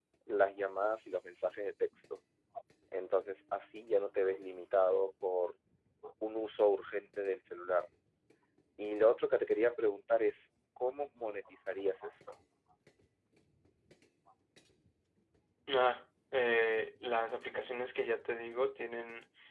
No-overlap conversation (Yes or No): Yes